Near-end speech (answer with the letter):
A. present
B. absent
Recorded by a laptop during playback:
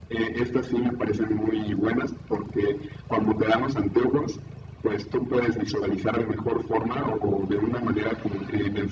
B